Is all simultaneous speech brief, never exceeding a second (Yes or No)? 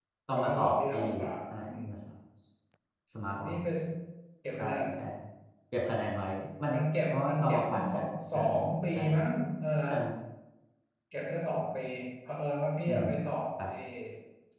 No